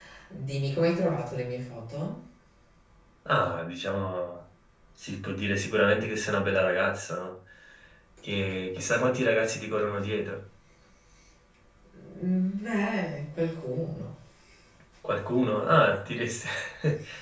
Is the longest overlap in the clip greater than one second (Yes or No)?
No